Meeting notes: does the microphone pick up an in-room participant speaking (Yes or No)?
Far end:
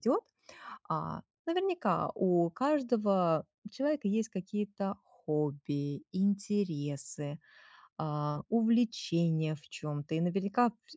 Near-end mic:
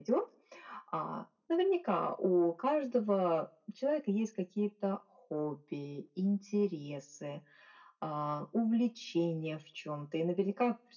No